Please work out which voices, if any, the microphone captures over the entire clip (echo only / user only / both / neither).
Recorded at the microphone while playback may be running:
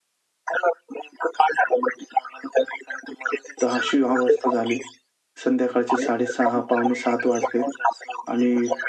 both